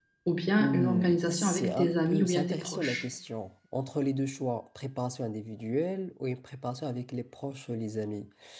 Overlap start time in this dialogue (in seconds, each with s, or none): 0.6 s